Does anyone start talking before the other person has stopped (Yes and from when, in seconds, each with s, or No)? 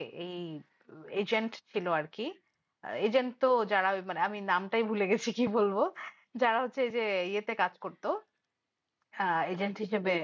No